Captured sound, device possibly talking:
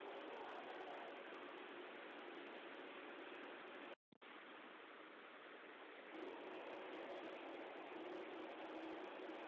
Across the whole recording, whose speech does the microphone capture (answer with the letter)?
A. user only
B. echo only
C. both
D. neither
D